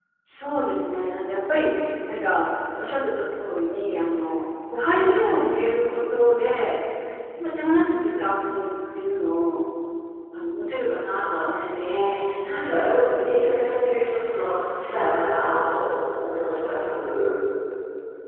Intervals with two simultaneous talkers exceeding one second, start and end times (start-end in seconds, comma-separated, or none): 12.4-13.7